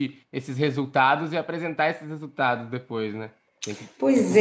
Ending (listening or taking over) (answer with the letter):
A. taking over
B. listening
A